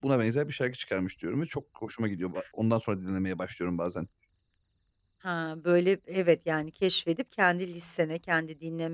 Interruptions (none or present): none